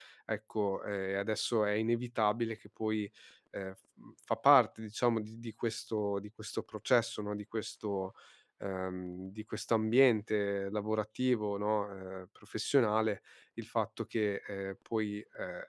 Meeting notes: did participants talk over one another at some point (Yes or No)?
No